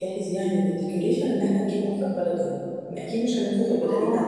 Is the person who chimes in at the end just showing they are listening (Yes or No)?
No